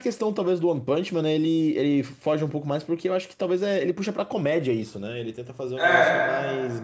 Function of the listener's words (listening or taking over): listening